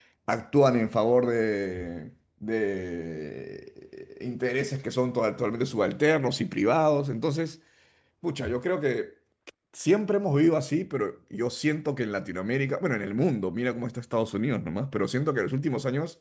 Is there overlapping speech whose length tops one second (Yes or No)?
No